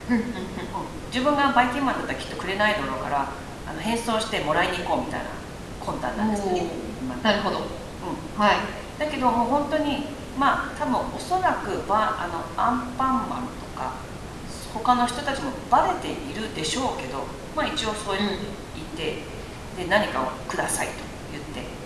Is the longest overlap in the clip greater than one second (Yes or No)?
No